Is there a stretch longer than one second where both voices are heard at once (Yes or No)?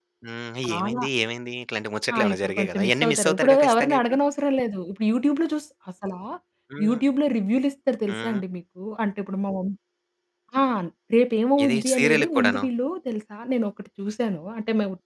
Yes